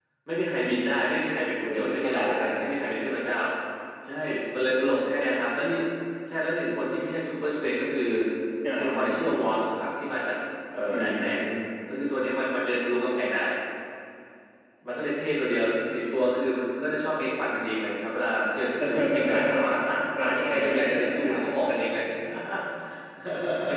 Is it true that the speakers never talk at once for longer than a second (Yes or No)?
No